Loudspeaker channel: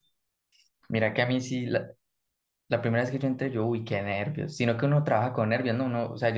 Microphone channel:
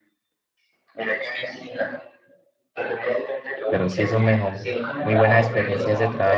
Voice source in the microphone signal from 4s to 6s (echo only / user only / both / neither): both